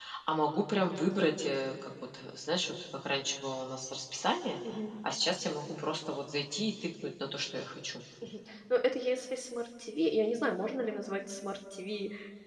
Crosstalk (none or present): none